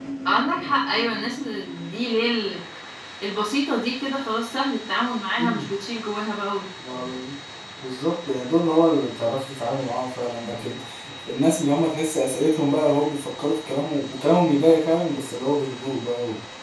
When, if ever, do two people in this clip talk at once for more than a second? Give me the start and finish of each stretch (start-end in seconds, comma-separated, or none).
none